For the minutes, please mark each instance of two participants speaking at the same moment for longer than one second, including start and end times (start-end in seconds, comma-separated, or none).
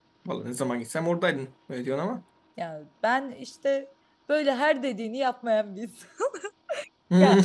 none